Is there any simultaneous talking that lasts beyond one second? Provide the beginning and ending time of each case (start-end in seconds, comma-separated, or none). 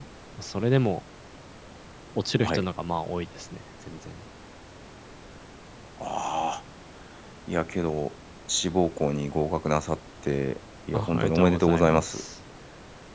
10.9-12.2